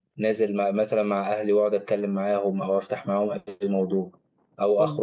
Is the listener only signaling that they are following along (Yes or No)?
Yes